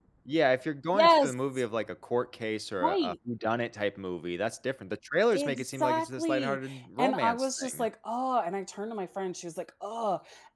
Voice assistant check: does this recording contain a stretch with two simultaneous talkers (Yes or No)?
Yes